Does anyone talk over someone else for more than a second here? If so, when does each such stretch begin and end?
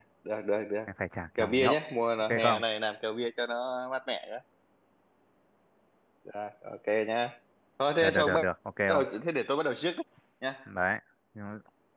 none

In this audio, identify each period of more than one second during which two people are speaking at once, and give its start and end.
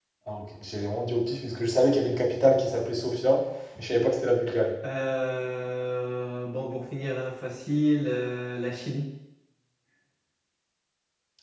none

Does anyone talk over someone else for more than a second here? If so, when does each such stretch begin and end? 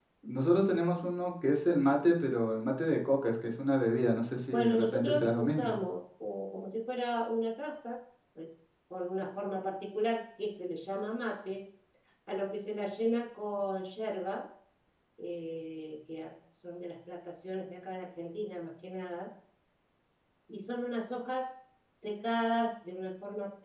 4.5-5.8

